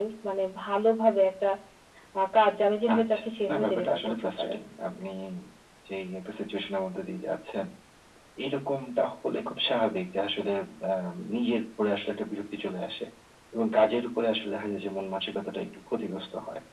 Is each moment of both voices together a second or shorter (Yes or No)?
No